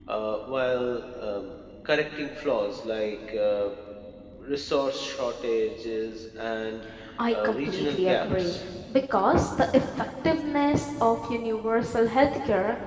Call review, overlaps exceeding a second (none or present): present